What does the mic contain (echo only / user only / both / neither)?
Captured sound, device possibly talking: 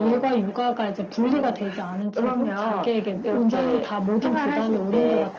echo only